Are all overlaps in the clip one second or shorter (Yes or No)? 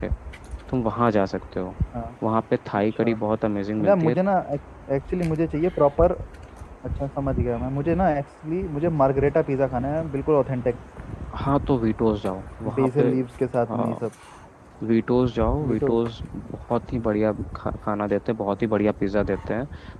Yes